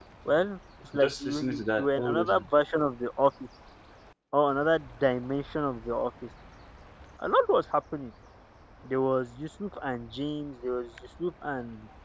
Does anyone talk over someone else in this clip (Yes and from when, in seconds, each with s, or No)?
Yes, from 0.9 s